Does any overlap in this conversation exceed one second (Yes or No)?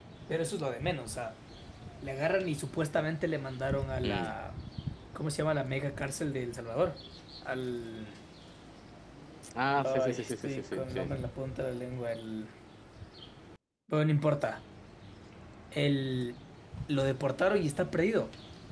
Yes